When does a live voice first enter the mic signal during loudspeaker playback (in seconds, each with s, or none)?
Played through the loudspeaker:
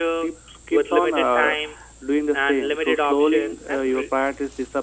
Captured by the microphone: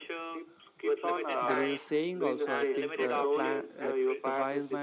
1.4 s